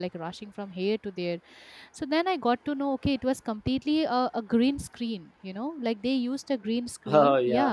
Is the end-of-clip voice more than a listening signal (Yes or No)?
No